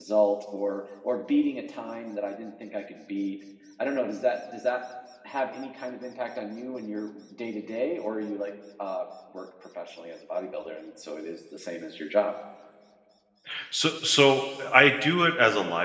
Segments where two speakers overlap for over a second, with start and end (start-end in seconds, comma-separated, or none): none